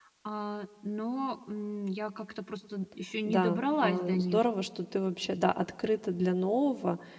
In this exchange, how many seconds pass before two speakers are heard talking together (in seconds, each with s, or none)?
3.2 s